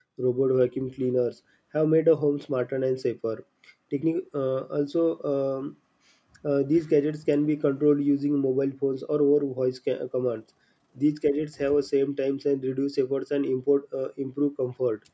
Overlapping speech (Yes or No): No